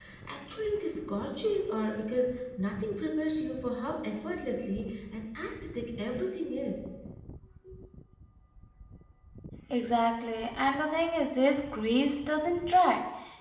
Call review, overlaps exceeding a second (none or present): none